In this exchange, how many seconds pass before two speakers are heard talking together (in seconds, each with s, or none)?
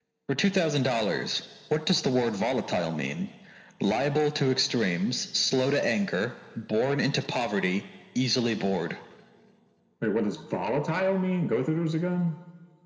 none